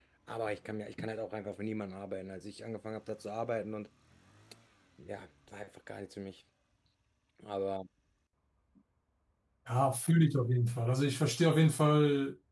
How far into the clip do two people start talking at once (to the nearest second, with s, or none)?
none